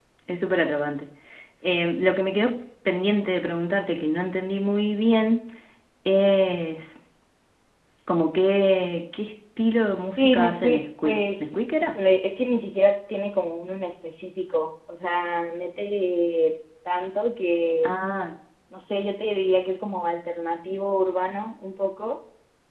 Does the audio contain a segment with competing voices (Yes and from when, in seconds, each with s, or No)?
Yes, from 10.2 s